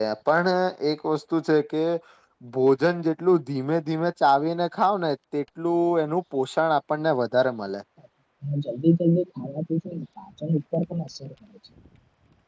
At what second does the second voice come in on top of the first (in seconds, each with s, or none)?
none